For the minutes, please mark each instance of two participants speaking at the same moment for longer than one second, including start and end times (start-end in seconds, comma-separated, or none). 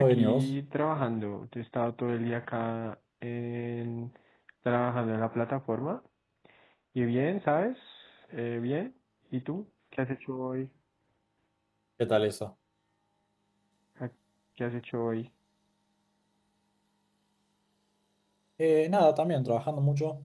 none